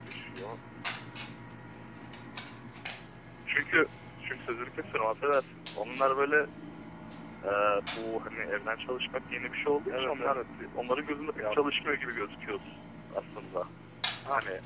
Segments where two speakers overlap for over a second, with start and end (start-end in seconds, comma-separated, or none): none